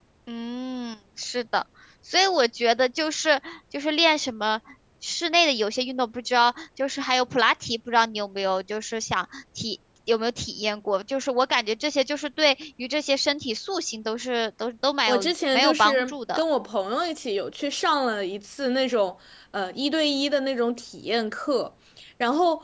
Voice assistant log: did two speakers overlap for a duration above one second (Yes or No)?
Yes